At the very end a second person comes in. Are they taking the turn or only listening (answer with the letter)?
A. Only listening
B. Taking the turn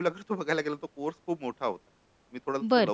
B